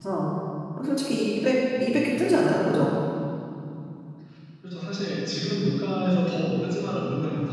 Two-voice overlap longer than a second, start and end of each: none

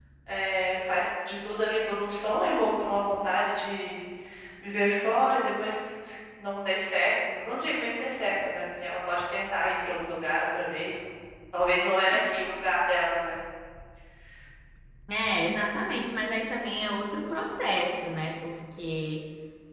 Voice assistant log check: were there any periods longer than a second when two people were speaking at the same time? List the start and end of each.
none

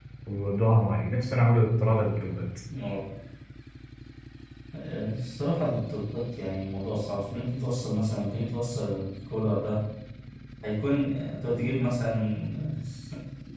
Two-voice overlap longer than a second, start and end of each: none

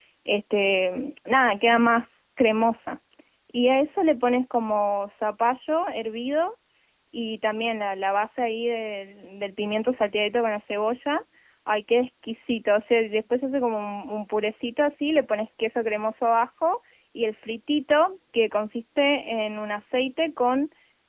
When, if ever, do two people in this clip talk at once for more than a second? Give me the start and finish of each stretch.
none

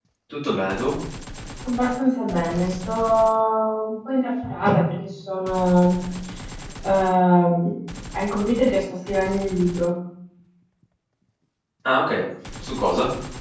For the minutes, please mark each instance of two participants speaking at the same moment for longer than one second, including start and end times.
none

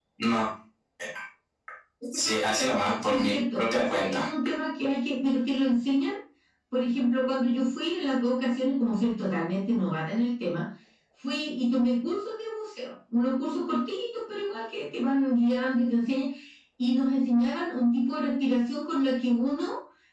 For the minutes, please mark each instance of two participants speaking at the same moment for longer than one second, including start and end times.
2.1-4.2

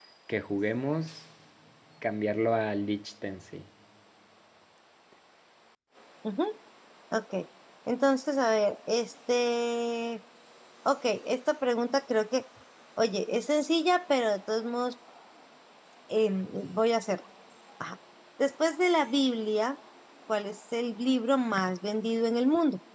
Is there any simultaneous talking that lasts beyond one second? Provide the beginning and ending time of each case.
none

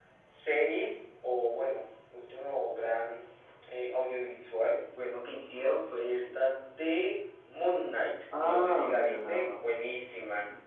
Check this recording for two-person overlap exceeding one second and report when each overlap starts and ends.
8.4-9.6

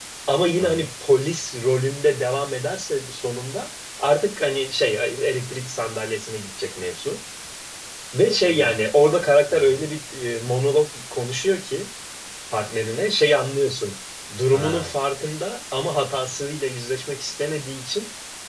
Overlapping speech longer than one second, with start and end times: none

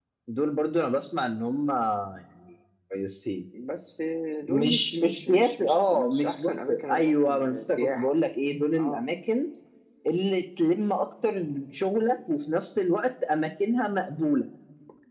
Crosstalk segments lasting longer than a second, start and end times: 4.4-8.1

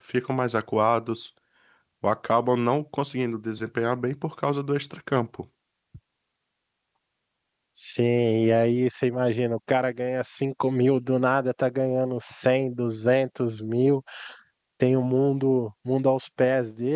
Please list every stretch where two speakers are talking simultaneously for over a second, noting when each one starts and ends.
none

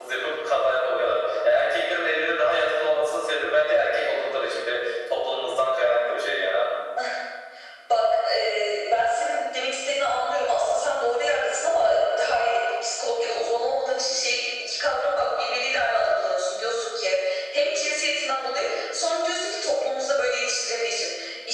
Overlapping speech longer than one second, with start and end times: none

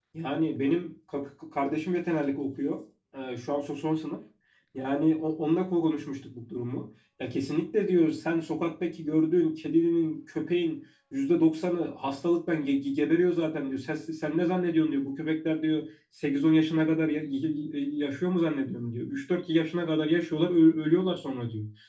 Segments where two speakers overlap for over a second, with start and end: none

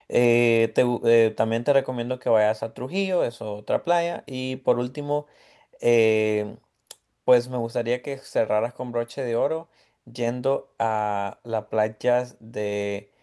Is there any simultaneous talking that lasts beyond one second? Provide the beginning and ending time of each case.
none

